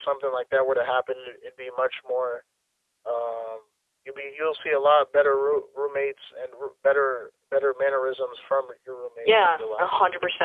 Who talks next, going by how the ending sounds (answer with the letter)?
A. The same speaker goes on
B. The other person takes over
B